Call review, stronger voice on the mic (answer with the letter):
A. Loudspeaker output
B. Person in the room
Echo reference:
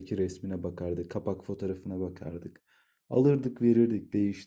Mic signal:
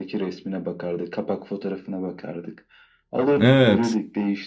B